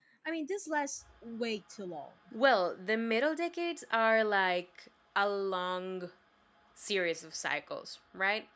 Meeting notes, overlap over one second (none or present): none